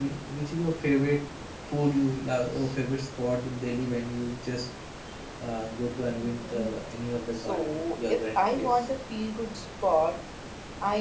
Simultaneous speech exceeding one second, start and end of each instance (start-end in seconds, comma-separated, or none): 7.3-8.9